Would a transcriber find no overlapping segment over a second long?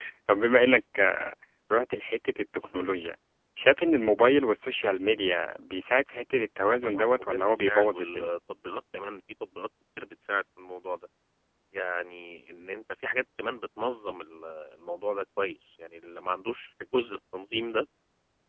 No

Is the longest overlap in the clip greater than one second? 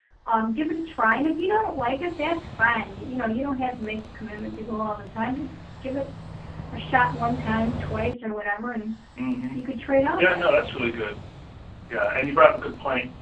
No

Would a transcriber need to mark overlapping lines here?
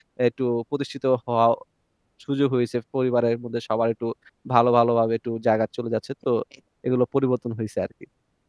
No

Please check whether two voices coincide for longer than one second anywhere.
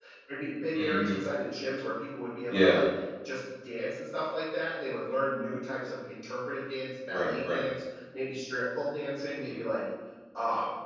No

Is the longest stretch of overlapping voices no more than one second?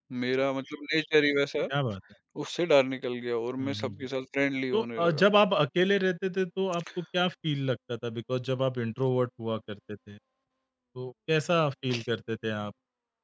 Yes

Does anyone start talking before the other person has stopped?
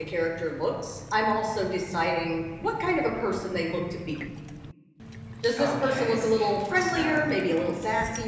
Yes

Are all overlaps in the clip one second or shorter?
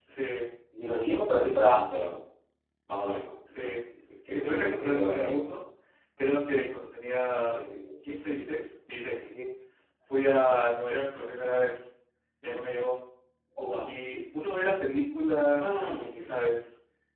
No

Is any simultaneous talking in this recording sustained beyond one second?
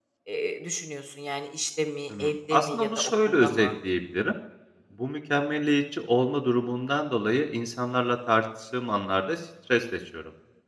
Yes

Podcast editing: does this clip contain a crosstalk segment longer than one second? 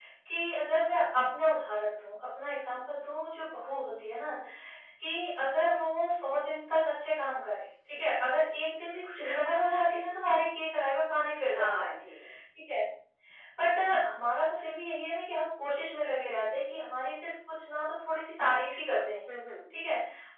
No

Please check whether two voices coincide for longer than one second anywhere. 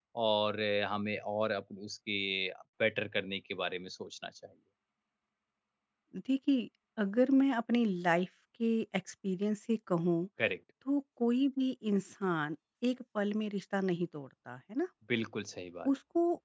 No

